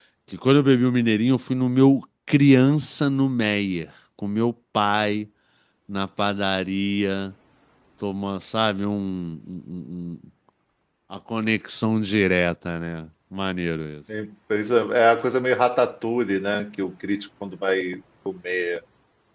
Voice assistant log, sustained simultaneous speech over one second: none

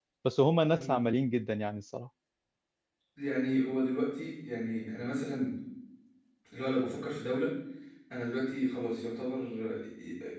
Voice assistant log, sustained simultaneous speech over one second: none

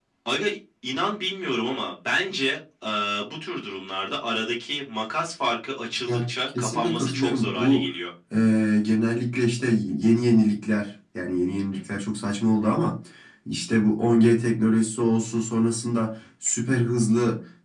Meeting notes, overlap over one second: present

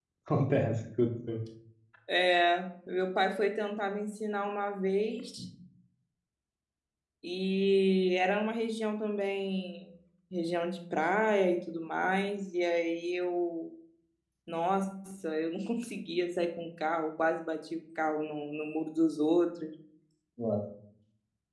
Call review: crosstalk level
none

